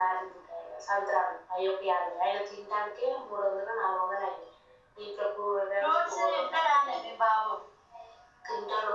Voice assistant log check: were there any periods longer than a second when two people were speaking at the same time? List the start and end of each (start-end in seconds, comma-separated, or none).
5.8-7.2